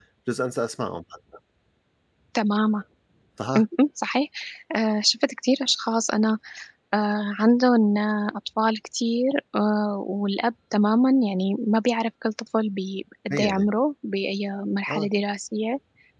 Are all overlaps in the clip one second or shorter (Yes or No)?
Yes